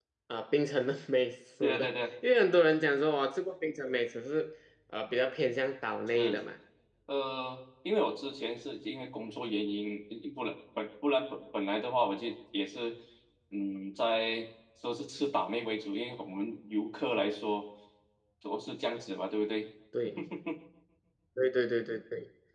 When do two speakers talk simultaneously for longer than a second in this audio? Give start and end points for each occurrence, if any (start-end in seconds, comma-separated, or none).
none